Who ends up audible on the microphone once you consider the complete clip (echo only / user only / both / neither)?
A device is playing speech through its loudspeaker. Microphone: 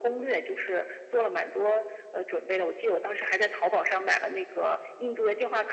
echo only